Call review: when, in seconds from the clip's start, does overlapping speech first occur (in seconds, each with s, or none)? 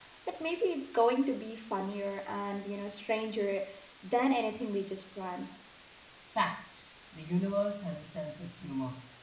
none